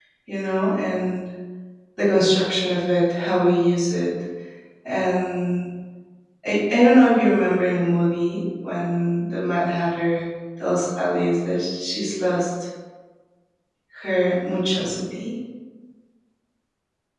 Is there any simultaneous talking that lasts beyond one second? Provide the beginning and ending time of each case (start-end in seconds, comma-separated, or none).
none